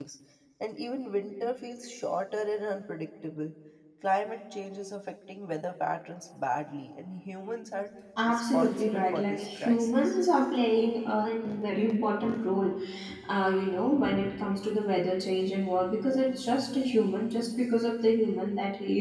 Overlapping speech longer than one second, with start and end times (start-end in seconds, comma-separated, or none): 8.2-10.2